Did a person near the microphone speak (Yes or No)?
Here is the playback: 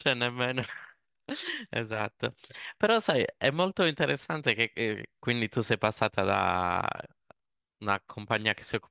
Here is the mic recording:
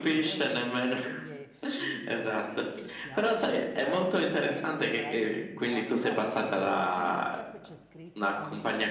Yes